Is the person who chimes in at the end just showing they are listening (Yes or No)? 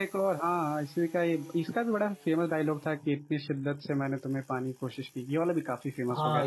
No